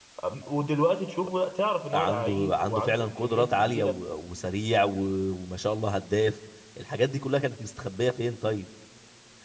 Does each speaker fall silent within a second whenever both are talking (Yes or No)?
No